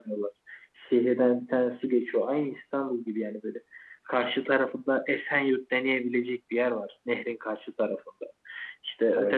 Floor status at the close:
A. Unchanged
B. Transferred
A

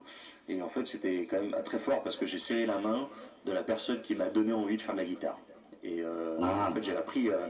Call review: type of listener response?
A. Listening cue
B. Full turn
A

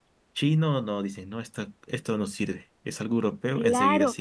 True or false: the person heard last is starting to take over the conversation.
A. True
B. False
A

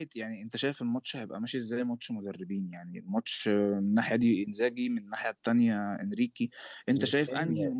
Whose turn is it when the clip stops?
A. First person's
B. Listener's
A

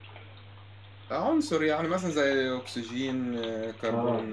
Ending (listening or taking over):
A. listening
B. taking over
B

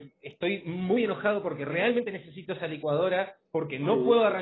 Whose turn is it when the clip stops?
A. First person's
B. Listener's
A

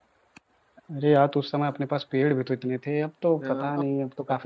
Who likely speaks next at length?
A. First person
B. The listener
B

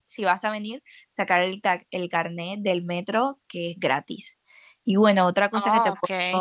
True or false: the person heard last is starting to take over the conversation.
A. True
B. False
B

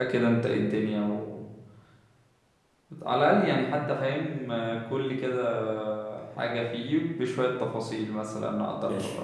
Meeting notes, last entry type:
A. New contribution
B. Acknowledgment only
A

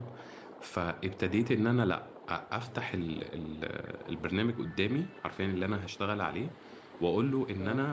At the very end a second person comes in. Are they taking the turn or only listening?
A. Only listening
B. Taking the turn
A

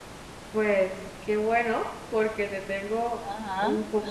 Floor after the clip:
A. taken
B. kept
B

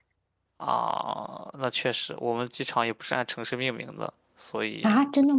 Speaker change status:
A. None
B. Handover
B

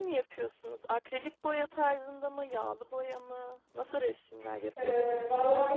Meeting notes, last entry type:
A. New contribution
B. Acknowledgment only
A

